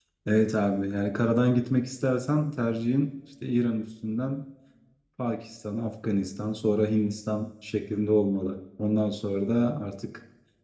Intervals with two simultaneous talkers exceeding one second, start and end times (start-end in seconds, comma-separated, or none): none